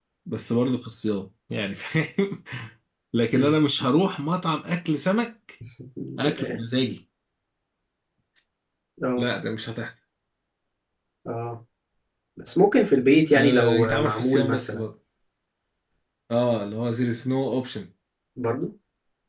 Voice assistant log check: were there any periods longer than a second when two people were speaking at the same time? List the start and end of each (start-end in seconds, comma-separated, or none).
13.3-14.8